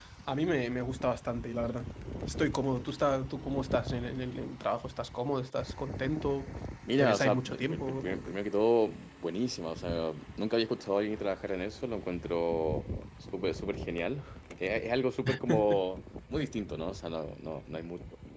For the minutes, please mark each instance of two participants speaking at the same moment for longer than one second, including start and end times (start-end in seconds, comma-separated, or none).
7.0-8.4